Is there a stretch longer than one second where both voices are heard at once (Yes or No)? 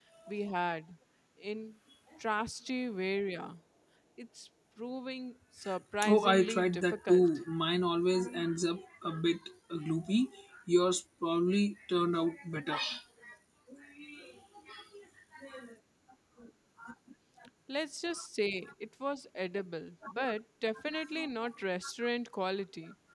Yes